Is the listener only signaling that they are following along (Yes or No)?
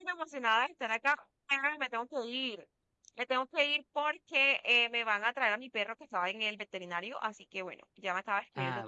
Yes